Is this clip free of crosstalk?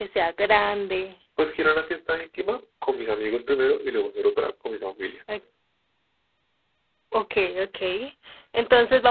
Yes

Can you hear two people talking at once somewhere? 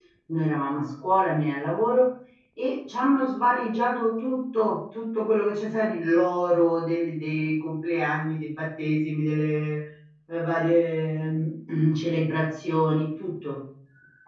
No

